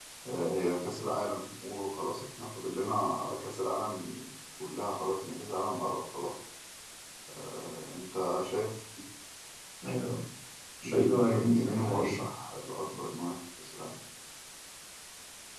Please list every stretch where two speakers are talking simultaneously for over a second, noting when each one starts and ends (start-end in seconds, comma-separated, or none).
10.8-12.2